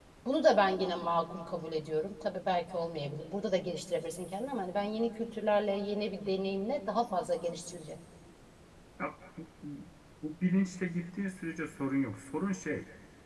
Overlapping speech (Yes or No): No